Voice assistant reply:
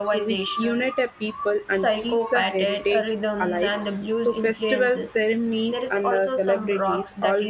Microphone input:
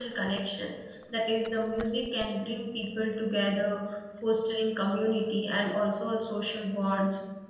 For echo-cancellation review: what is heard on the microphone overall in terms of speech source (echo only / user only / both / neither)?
user only